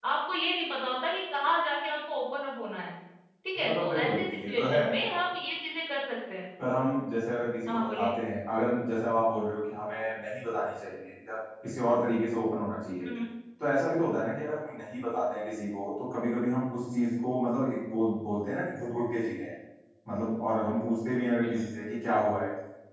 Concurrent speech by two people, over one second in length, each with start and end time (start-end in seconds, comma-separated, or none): 3.6-4.8